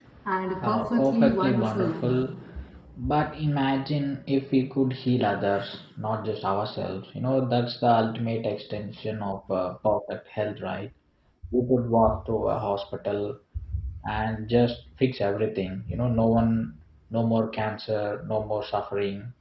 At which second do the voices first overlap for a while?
0.7 s

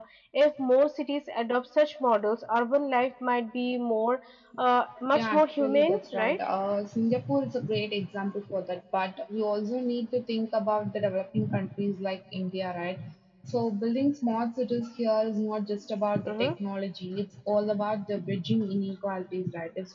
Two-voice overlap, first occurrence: 5.1 s

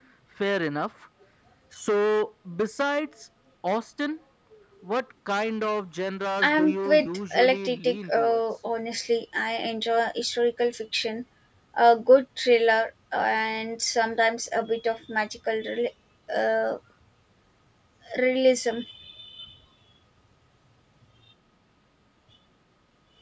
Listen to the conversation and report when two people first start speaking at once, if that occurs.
6.4 s

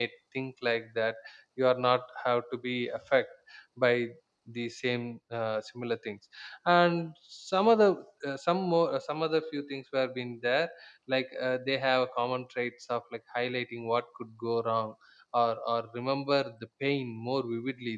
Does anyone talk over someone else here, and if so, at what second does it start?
none

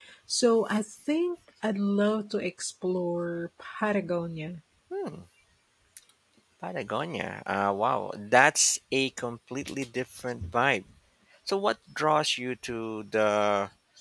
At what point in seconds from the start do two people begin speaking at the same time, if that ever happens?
none

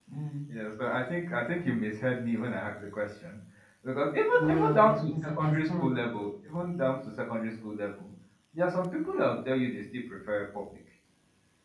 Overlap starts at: 4.3 s

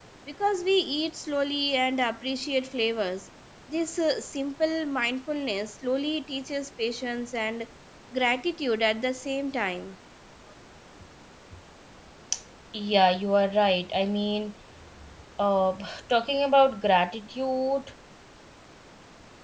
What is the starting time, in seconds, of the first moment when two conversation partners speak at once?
none

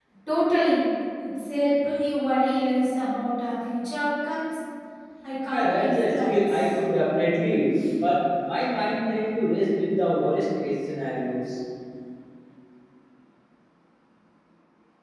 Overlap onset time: 5.5 s

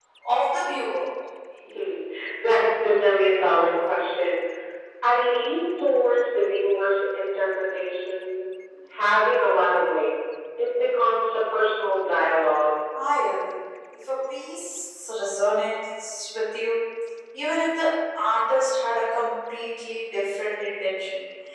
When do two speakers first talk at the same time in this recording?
none

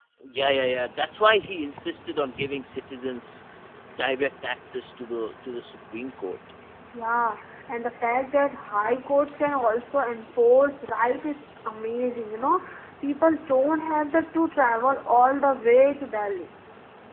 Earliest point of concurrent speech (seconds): none

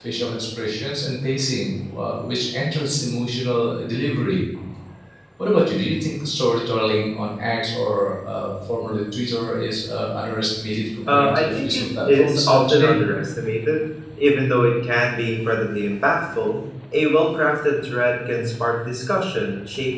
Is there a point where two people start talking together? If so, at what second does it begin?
11.0 s

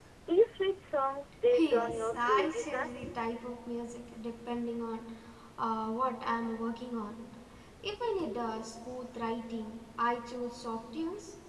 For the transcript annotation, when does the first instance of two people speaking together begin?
1.5 s

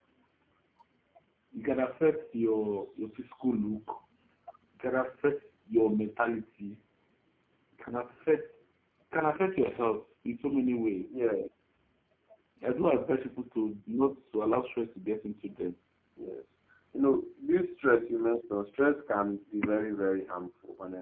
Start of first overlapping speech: none

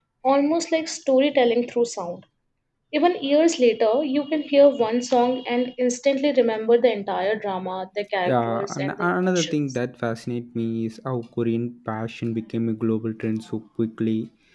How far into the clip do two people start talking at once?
8.3 s

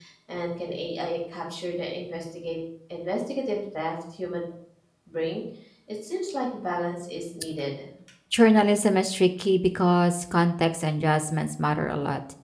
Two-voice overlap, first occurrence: none

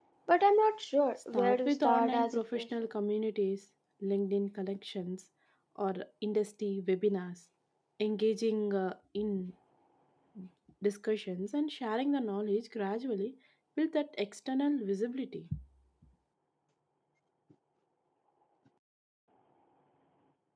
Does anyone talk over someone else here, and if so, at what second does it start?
1.3 s

